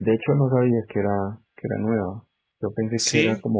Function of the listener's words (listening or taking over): listening